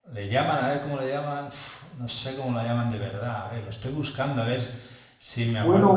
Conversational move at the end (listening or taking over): taking over